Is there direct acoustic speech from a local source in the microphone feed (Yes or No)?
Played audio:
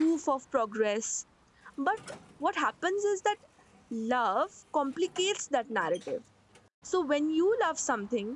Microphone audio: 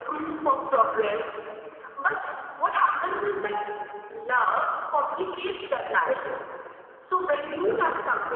No